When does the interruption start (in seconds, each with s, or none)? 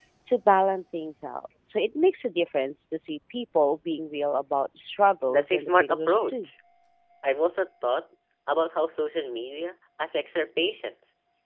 5.3 s